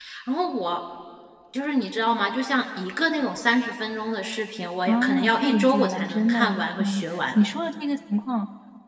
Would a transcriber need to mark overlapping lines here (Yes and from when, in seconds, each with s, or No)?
Yes, from 4.9 s